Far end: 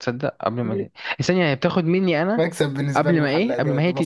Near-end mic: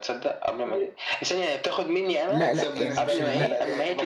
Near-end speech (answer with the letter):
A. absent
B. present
B